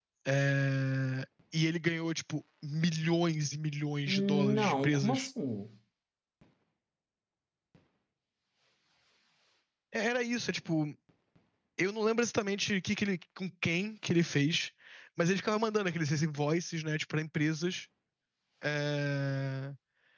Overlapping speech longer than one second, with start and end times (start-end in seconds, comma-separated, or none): 4.1-5.3